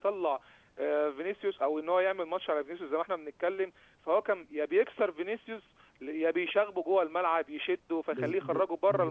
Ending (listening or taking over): taking over